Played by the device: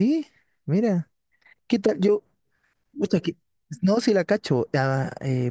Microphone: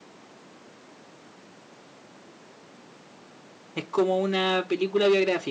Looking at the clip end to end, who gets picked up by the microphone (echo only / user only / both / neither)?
user only